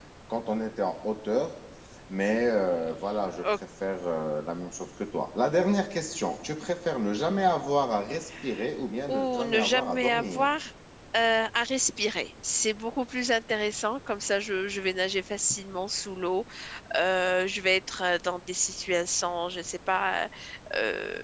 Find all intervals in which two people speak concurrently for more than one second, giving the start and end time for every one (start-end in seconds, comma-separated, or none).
9.1-10.5